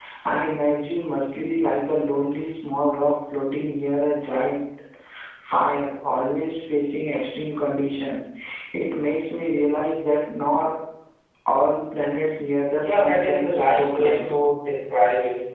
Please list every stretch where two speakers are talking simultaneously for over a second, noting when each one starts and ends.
12.8-14.3

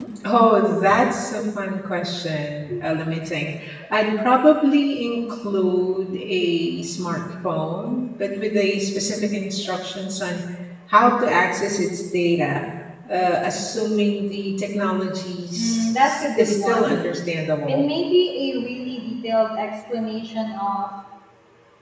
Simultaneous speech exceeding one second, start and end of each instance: 15.6-17.0

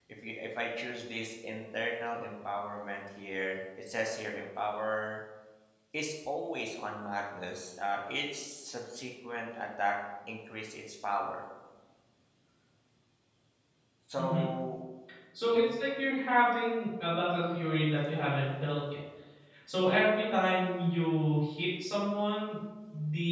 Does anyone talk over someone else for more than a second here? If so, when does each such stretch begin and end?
none

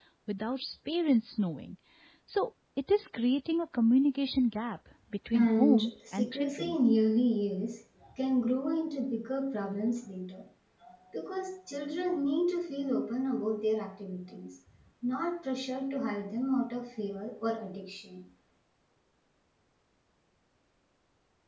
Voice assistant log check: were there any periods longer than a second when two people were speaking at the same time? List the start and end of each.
5.3-6.8

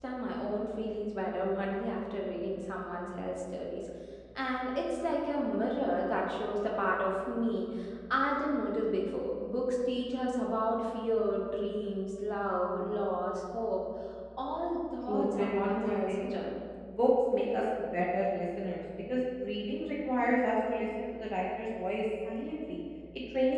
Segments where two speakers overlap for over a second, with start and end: 15.1-16.3

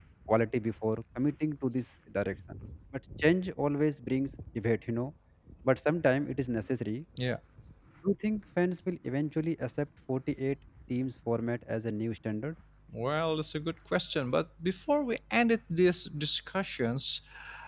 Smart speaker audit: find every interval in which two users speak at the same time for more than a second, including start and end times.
none

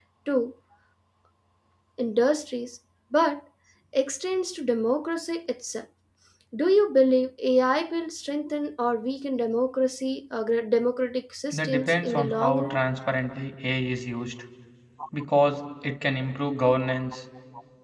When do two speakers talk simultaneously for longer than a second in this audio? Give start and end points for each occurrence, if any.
11.5-12.8

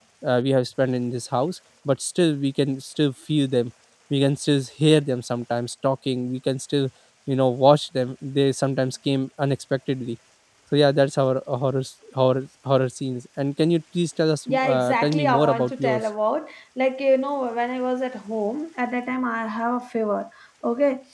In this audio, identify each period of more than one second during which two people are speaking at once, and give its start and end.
14.5-16.0

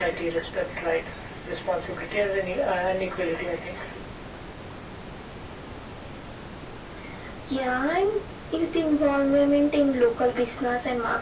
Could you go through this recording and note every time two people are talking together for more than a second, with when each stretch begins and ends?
none

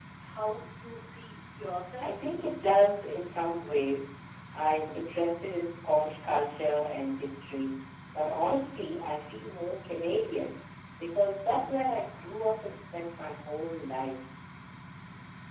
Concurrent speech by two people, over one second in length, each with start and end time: none

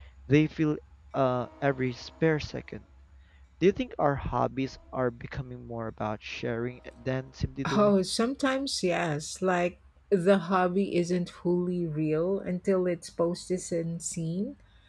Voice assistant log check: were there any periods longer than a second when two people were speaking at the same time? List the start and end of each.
none

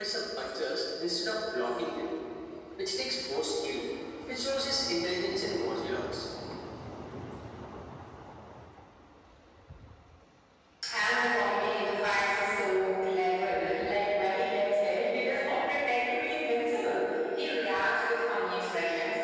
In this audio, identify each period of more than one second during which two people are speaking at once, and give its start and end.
none

